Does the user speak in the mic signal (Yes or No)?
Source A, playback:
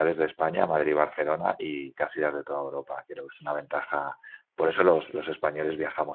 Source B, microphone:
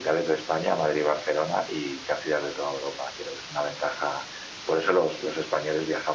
No